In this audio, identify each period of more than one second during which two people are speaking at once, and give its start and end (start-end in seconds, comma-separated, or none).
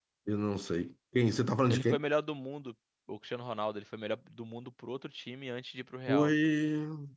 none